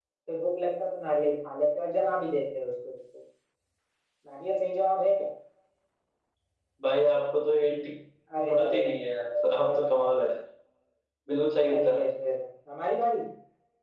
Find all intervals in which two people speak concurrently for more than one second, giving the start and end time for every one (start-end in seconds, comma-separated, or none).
8.5-10.3